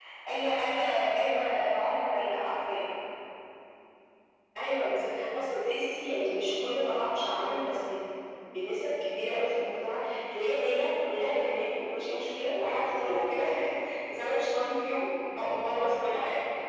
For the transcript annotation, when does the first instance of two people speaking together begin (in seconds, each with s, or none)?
none